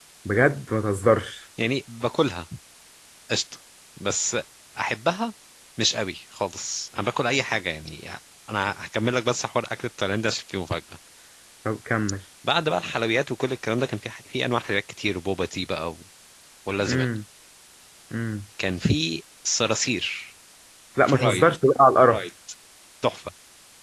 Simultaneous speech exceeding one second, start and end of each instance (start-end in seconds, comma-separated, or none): none